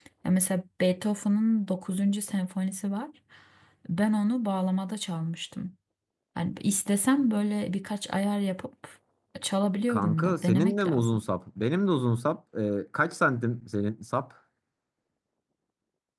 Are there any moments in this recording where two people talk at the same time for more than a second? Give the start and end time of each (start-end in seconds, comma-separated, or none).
9.9-11.2